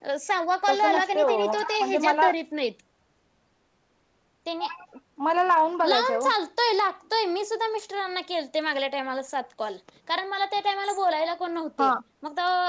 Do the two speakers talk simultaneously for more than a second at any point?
Yes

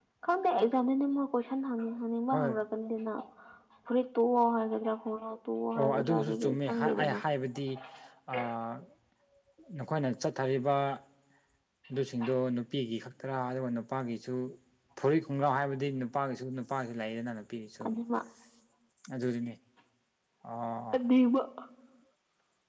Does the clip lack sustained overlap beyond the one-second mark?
No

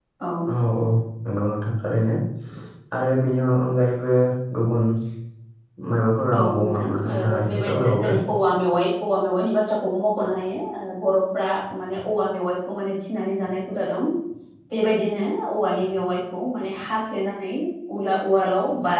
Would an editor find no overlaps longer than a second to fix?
No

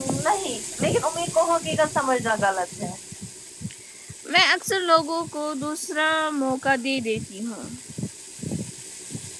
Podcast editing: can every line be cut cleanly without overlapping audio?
Yes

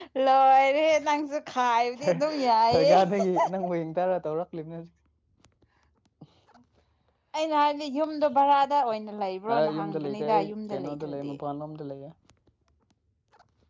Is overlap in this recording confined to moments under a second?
No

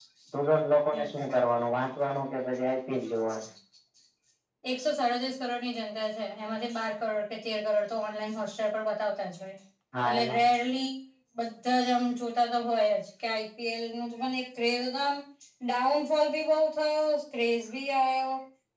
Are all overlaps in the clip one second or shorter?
Yes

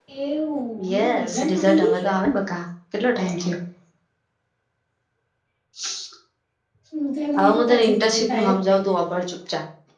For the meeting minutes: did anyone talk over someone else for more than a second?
Yes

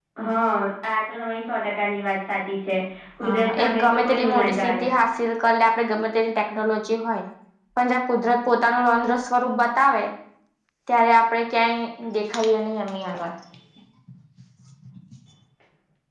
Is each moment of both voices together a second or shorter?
No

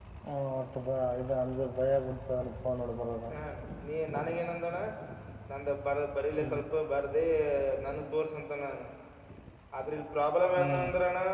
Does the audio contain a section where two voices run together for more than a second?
No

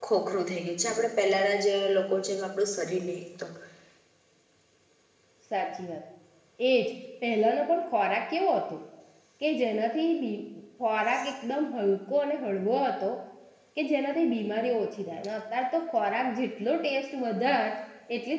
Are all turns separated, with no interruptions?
Yes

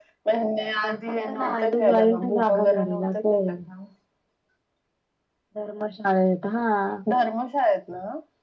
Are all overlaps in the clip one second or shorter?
No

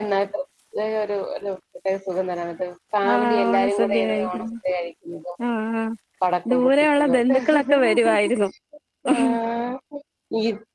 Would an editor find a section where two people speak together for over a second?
Yes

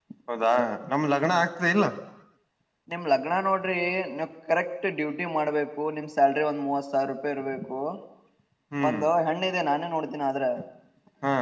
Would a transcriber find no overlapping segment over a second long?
Yes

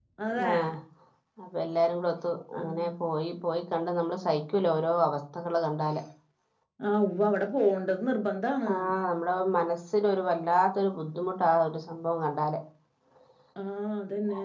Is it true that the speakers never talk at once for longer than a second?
Yes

